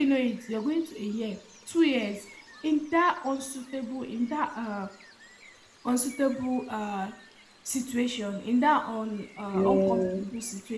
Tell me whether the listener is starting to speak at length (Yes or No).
No